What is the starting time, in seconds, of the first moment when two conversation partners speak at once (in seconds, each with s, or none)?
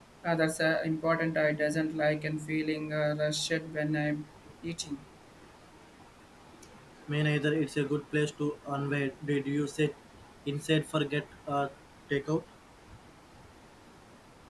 none